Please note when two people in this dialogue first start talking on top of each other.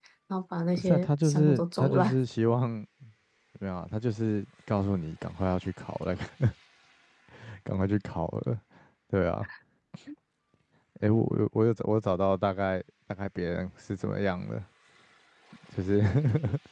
0.8 s

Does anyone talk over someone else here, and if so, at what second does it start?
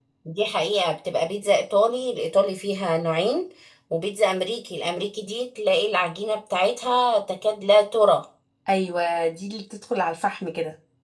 none

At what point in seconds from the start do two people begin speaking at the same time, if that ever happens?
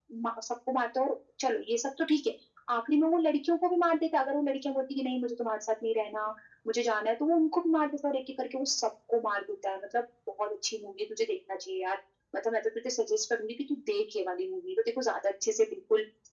none

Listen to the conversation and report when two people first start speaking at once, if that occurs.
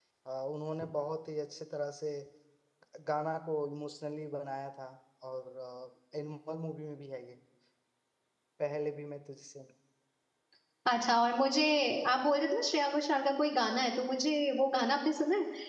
none

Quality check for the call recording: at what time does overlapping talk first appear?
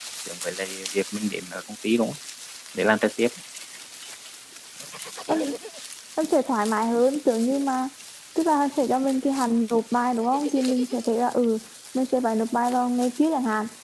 none

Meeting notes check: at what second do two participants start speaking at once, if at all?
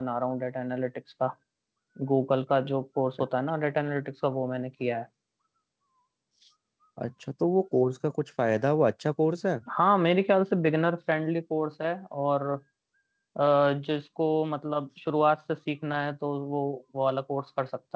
none

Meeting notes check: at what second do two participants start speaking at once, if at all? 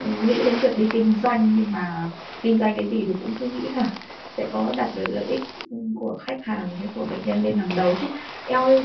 none

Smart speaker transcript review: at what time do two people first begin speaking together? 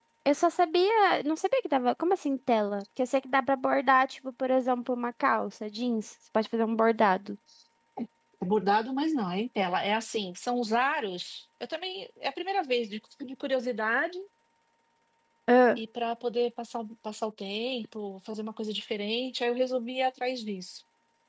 none

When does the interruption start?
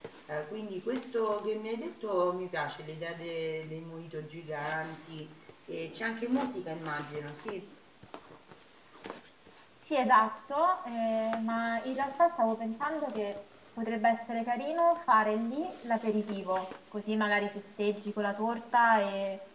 none

